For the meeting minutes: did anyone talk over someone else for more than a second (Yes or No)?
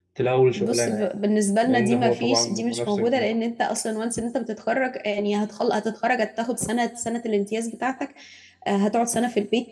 Yes